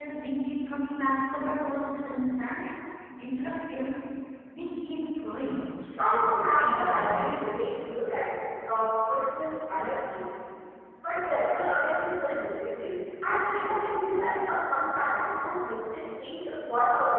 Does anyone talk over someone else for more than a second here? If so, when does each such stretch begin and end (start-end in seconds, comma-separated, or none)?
6.0-7.5